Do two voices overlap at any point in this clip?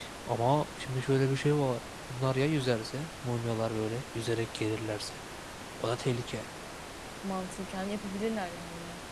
No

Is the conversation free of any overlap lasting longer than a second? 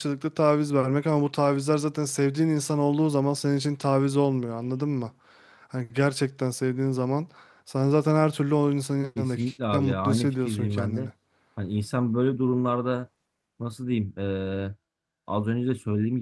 No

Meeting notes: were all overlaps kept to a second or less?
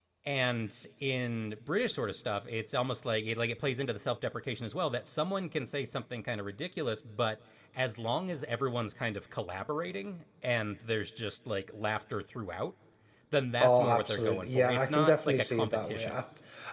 No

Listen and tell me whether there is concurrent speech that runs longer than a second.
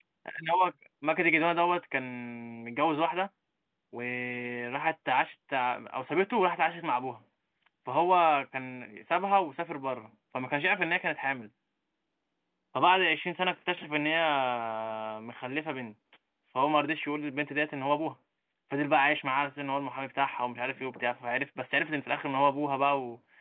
No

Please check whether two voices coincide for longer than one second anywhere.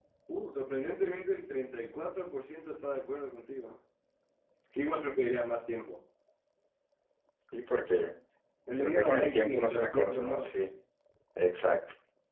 Yes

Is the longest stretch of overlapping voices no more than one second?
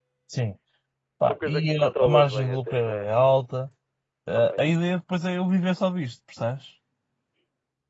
No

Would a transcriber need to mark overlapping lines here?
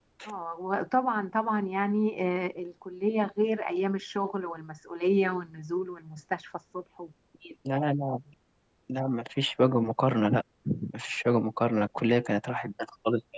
No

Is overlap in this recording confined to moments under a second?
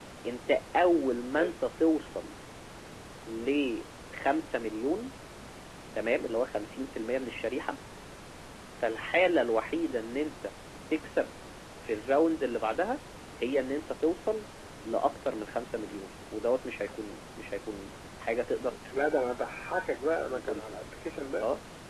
Yes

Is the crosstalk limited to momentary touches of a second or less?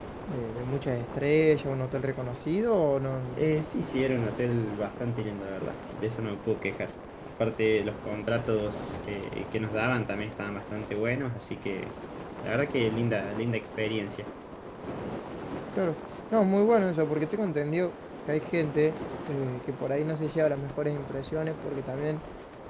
Yes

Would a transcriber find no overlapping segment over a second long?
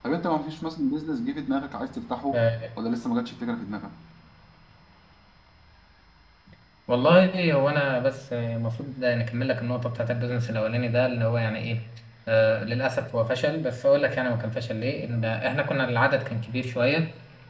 Yes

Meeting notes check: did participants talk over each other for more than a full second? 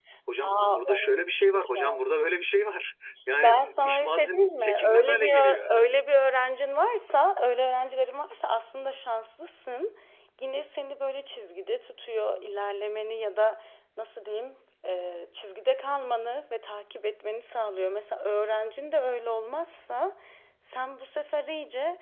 Yes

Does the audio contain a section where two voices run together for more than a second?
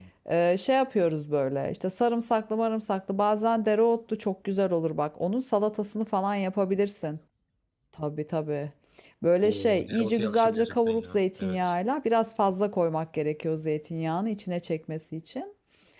Yes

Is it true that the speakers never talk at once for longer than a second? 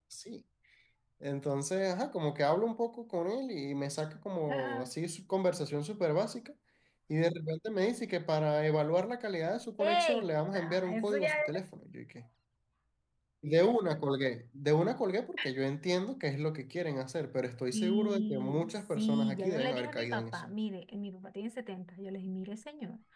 No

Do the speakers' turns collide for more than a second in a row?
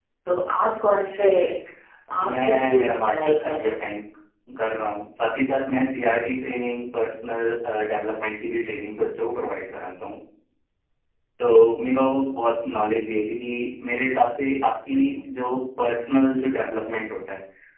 Yes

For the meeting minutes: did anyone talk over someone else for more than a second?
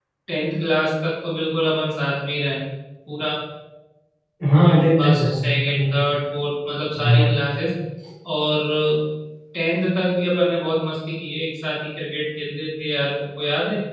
Yes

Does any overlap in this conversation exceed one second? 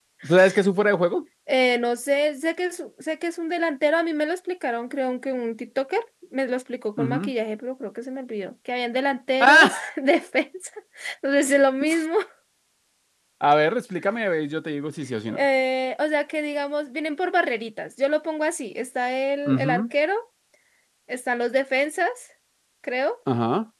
No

